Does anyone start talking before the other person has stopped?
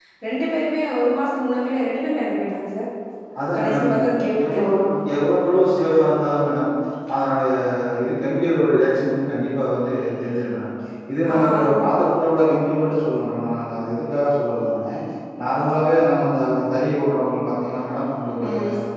Yes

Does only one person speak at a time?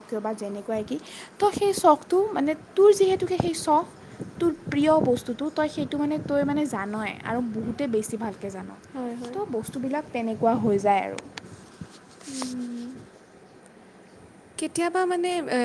Yes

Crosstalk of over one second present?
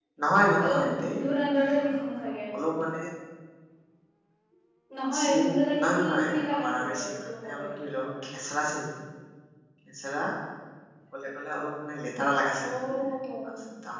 Yes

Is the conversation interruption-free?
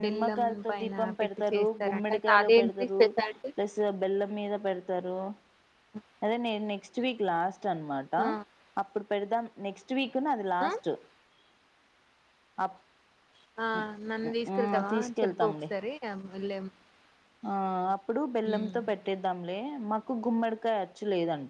No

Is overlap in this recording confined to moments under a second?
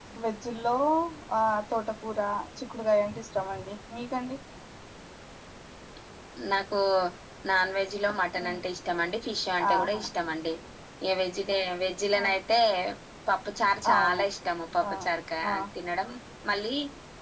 Yes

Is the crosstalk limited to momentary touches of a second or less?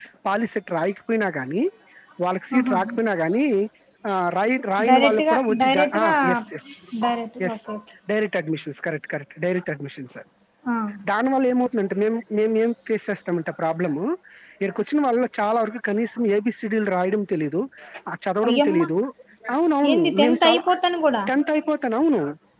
No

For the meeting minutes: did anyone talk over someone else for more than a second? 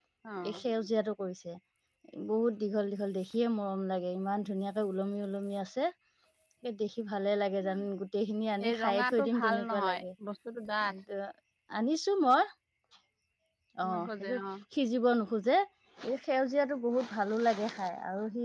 Yes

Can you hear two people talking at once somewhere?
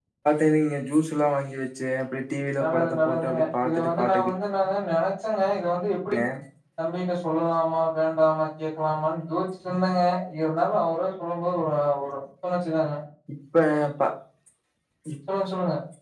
Yes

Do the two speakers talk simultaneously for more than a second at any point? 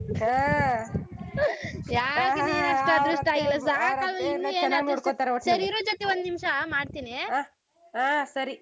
Yes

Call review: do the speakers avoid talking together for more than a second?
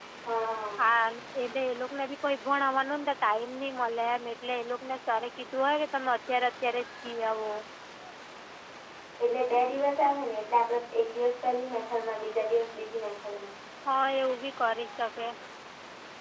Yes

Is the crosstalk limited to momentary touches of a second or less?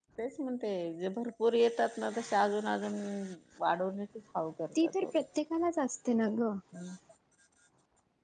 Yes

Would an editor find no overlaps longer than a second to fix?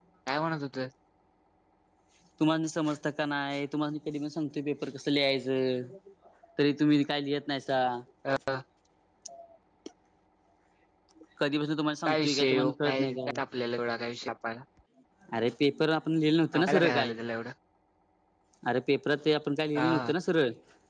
No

